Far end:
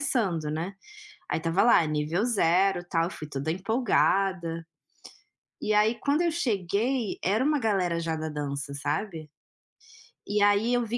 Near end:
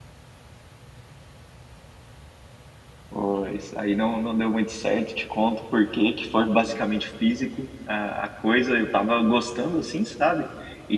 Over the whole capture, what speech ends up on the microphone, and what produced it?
user only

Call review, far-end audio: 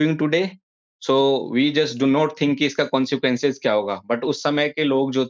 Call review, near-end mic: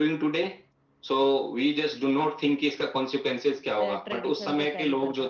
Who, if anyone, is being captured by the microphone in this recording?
both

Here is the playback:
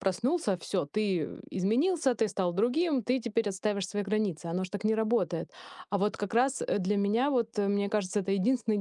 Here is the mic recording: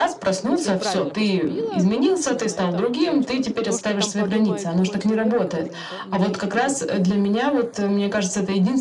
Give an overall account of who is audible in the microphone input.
both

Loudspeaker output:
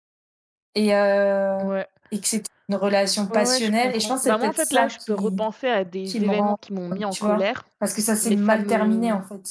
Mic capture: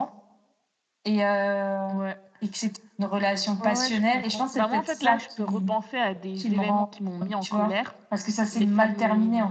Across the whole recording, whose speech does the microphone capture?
echo only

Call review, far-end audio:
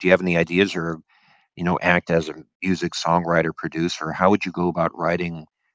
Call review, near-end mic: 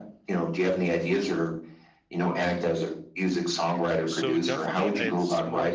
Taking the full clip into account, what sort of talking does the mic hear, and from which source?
both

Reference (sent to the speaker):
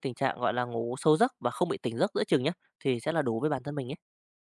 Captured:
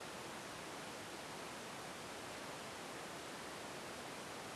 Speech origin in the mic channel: neither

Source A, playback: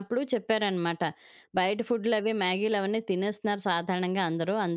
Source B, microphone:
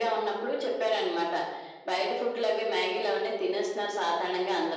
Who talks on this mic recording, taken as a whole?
echo only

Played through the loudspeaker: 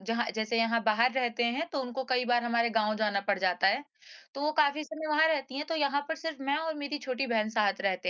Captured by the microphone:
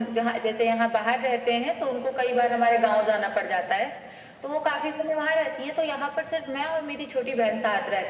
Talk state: echo only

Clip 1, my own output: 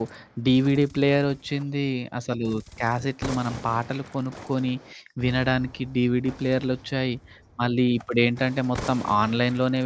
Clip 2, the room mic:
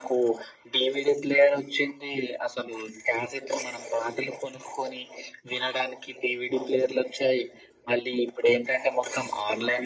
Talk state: echo only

